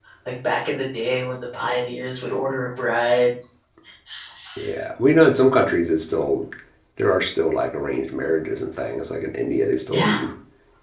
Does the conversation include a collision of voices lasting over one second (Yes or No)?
No